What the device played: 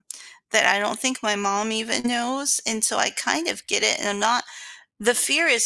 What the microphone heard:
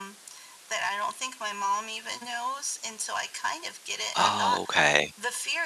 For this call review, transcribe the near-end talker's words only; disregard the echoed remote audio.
Oh, okay.

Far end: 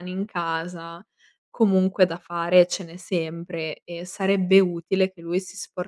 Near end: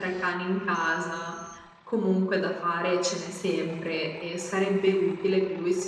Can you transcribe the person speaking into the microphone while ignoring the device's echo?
none

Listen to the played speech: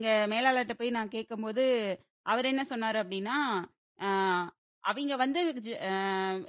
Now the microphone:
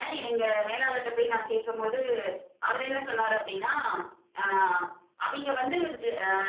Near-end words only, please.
none

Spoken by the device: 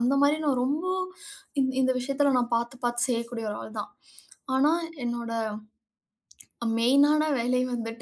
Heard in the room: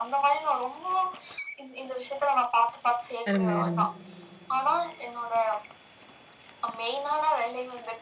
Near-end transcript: அருமை, அருமை.

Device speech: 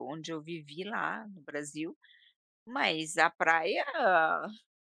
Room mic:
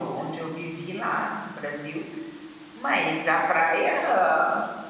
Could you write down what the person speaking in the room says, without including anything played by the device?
none

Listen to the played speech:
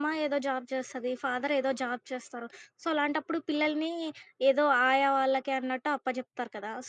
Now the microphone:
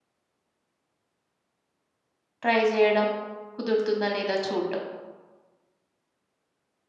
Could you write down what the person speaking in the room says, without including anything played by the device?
ట్రై జేయడం, కుదురుతుందా లేదా చూడడం.

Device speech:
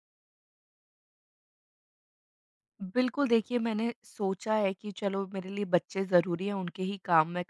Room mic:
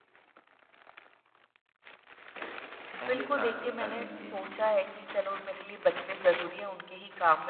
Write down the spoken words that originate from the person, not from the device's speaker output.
पहले प्राथमिकता दीजिए।

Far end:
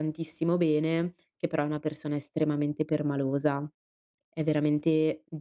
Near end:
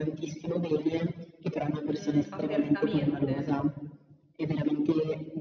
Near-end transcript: mhmm, apertamente.

